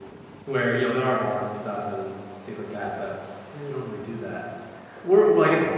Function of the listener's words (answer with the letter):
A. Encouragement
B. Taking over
A